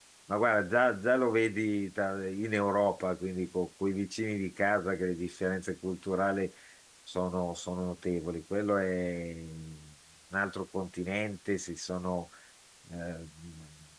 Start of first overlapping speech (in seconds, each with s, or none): none